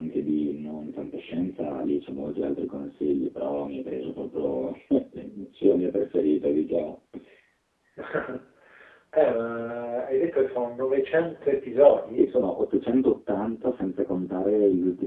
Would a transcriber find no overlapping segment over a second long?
Yes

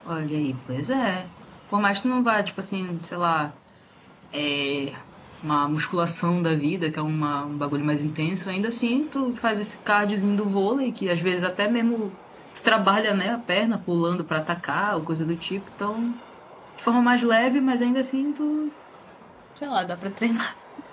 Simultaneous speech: No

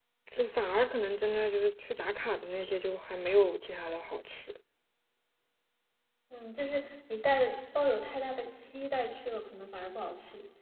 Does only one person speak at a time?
Yes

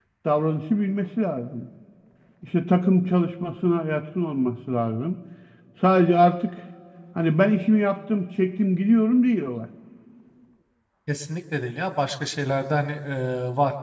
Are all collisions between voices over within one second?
Yes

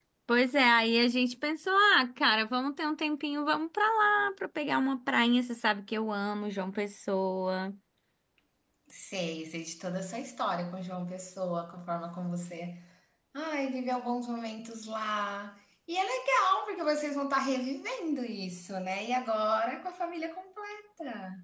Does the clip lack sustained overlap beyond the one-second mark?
Yes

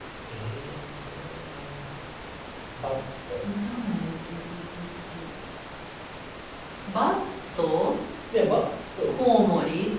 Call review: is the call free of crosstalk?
Yes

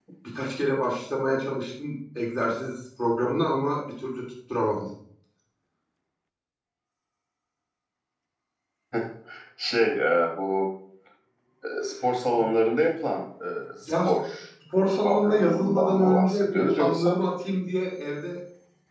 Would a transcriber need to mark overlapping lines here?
Yes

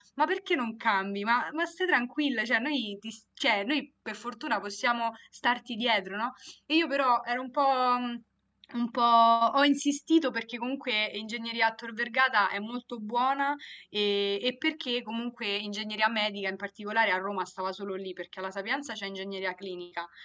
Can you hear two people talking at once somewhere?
No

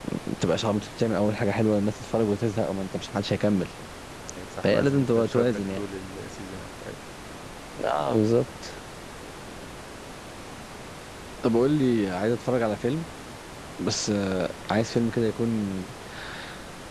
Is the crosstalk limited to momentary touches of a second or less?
No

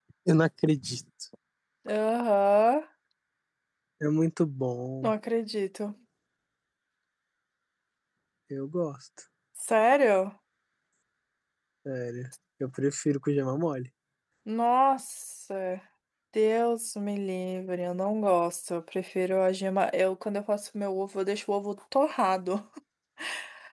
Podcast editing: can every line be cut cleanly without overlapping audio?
Yes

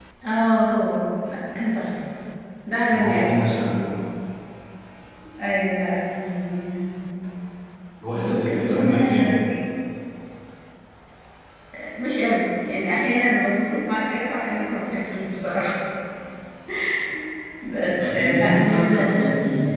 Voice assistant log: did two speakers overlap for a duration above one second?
Yes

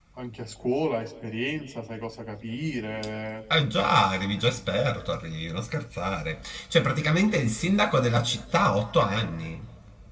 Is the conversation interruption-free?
Yes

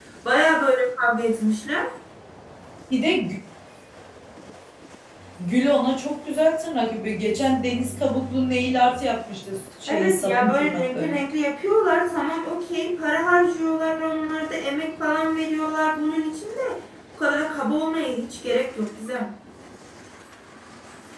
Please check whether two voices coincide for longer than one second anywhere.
Yes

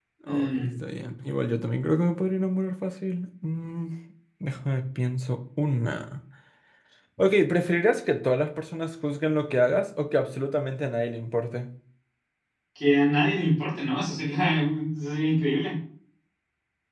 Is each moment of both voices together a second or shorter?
Yes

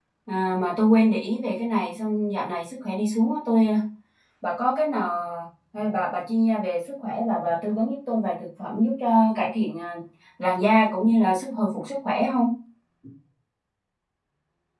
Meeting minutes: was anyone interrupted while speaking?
No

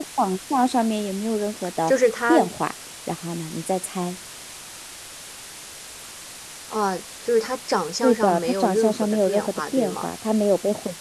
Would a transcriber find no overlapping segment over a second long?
No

